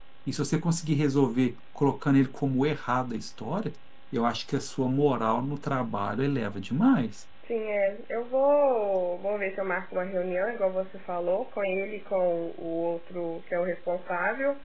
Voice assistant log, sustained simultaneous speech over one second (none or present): none